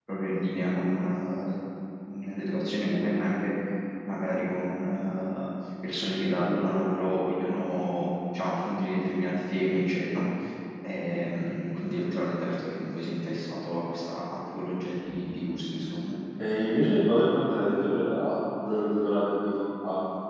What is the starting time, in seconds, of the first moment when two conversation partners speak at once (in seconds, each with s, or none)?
none